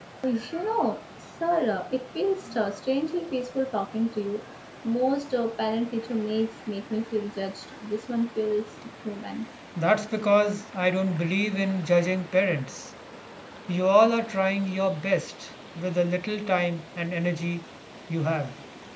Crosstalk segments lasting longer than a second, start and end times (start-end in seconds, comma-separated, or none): none